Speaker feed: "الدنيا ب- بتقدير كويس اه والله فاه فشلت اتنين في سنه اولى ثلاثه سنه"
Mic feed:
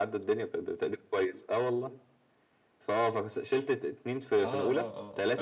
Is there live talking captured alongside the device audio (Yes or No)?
Yes